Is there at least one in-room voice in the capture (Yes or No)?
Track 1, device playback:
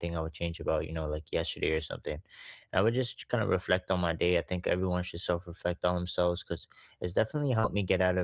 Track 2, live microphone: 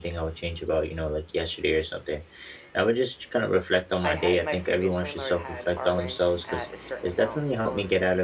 Yes